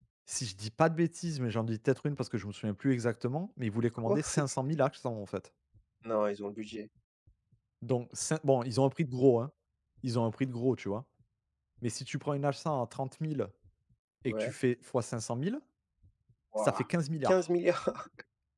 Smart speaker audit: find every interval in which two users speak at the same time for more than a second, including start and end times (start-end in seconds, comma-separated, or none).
none